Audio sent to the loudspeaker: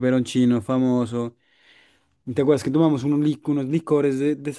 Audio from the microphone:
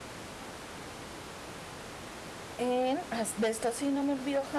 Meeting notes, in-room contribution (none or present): present